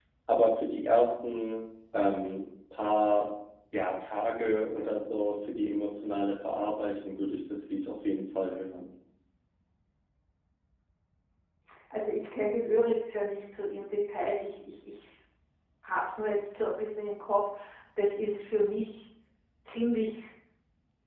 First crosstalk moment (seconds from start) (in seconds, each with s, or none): none